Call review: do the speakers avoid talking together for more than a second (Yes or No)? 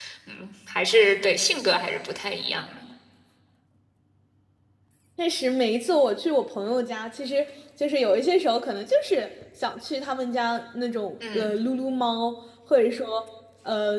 Yes